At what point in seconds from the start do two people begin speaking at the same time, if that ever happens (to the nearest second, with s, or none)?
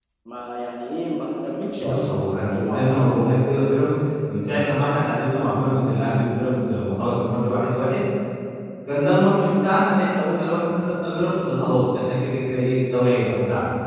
2 s